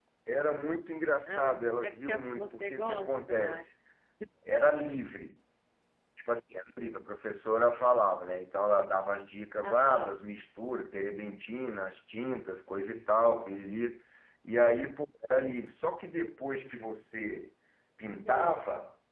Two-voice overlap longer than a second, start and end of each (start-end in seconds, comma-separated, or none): 1.3-3.6